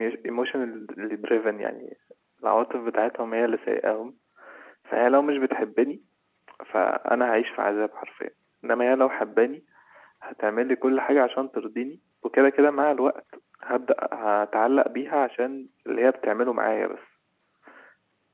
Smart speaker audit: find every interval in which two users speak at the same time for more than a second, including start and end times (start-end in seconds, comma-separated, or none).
none